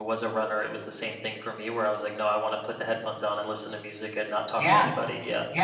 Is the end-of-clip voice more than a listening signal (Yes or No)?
Yes